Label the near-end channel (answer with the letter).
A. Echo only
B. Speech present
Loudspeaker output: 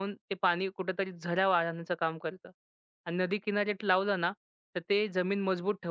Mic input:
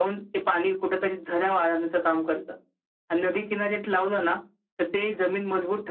A